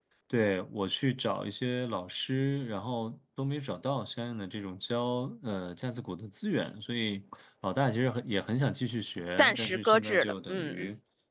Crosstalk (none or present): present